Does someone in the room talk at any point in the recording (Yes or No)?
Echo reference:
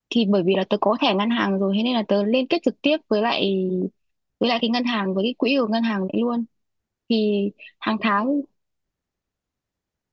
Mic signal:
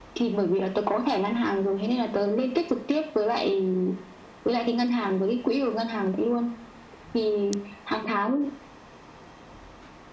No